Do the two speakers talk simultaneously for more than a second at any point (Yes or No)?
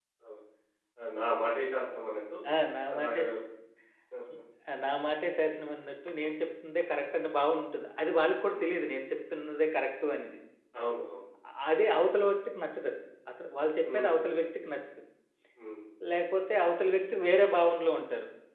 No